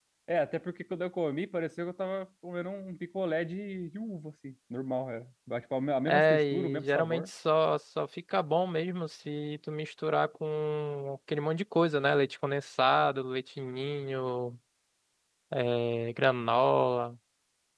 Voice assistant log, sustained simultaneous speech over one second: present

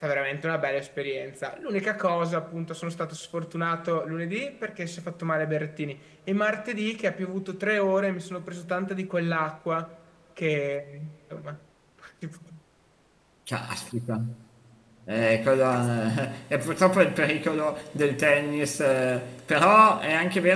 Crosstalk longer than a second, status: none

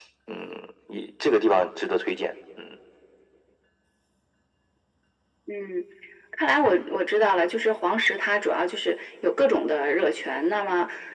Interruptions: none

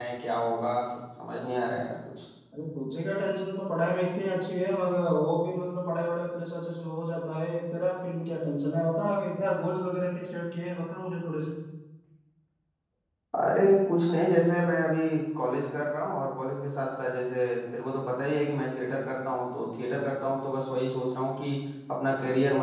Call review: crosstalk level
none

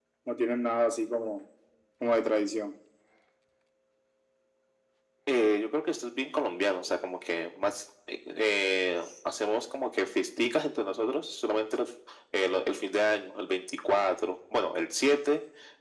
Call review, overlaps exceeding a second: none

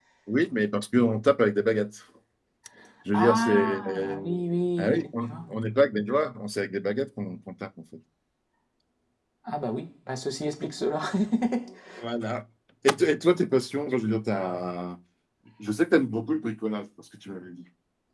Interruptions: present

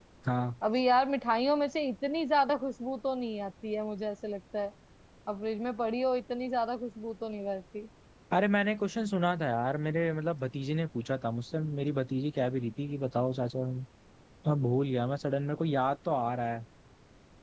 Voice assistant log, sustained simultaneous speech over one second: none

